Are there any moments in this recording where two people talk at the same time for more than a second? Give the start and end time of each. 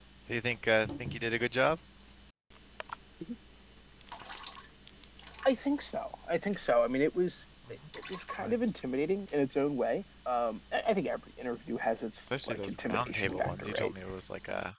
12.4-13.9

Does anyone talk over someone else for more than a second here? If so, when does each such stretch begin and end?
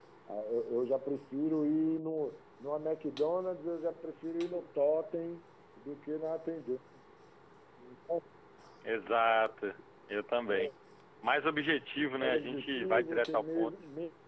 12.2-13.7

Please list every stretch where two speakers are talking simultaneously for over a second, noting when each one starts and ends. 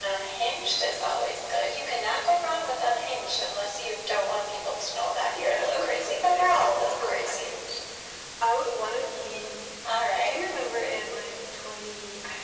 5.3-7.5

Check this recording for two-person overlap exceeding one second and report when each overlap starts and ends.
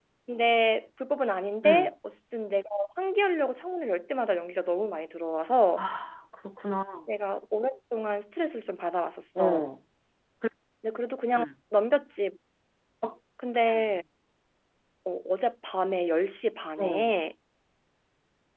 none

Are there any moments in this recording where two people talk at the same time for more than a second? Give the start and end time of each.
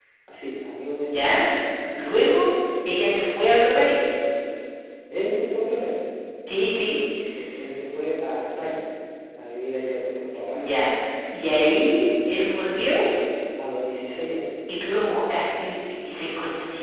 none

